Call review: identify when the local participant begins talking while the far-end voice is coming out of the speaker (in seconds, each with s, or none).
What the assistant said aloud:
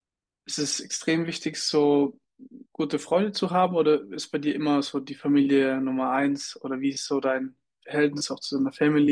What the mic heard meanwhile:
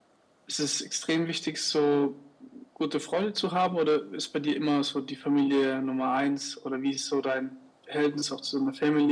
none